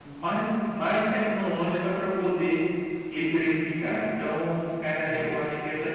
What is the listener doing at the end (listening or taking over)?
listening